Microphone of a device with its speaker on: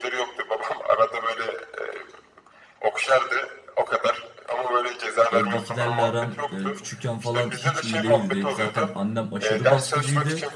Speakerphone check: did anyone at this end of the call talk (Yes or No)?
Yes